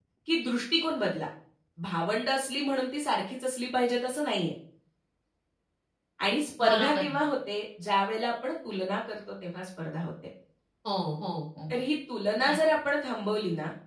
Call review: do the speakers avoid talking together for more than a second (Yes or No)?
Yes